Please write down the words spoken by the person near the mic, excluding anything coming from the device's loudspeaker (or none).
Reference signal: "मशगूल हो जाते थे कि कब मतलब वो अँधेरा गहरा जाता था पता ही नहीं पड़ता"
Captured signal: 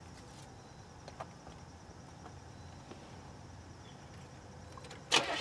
none